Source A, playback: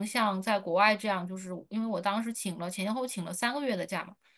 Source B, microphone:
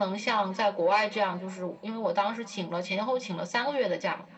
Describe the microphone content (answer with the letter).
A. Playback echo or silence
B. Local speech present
A